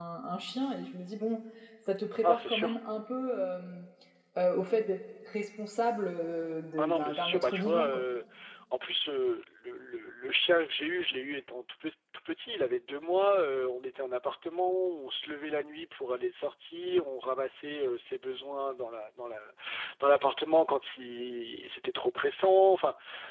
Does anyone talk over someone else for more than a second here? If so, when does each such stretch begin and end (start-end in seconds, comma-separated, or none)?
6.8-8.0